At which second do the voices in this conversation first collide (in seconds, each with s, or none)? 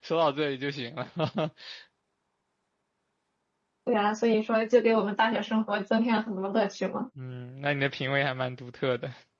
none